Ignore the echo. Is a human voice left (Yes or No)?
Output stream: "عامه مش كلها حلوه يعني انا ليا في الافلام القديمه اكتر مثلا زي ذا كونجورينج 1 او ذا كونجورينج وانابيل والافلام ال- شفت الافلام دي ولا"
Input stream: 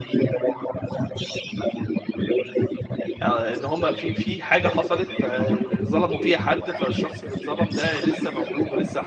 Yes